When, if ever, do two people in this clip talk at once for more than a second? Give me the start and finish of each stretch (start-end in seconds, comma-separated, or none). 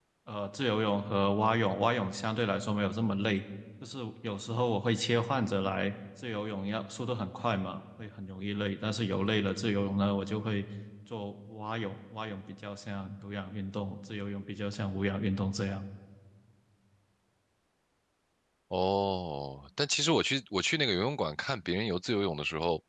none